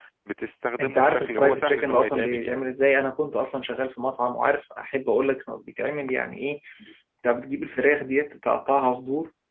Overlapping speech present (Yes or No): Yes